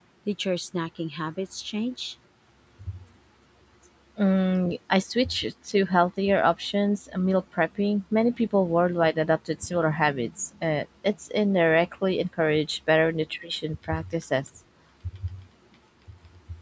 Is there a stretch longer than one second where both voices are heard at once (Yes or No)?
No